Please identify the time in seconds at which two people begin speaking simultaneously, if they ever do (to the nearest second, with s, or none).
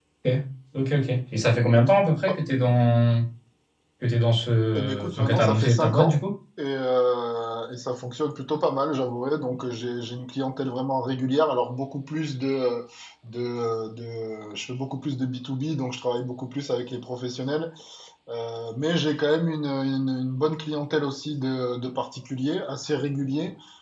5 s